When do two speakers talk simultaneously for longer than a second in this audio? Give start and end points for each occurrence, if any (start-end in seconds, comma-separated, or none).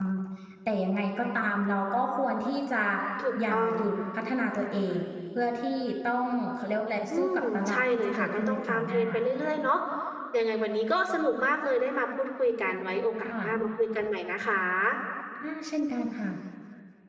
7.1-9.0